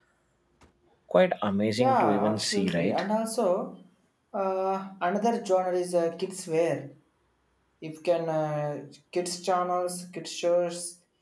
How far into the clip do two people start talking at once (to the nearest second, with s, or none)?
2 s